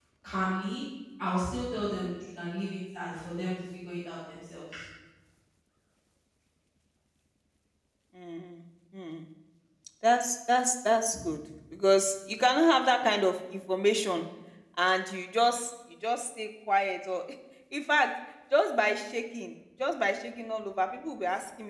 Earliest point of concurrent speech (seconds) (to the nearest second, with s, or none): none